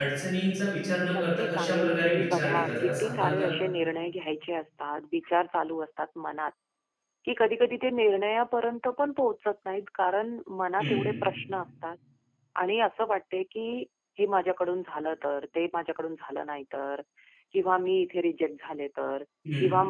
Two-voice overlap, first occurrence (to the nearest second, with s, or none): 1 s